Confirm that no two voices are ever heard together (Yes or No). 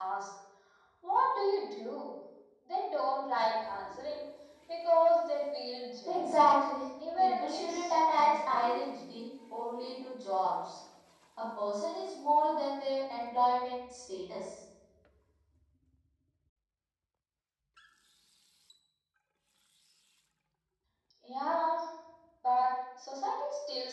No